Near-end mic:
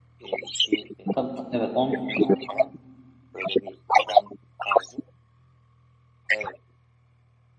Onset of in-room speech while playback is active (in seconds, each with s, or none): 1.1 s